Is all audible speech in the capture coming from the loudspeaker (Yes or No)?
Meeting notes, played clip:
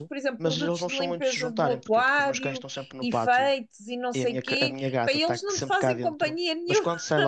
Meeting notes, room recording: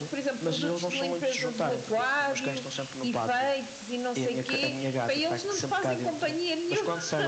Yes